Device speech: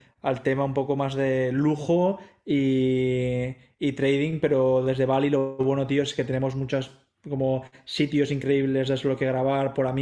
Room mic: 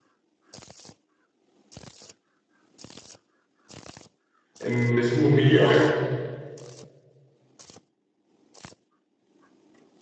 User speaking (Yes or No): Yes